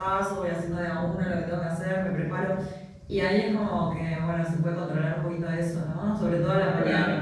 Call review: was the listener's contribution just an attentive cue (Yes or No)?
No